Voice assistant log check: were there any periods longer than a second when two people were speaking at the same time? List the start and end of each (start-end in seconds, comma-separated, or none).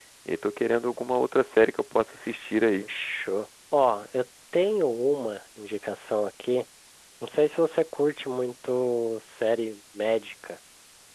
none